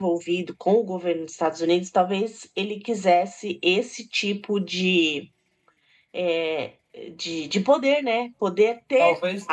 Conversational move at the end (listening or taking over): listening